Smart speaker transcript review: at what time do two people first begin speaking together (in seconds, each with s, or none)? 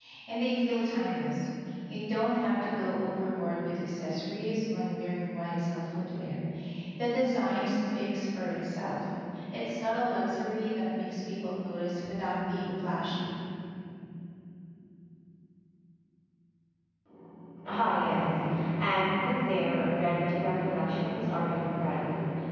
none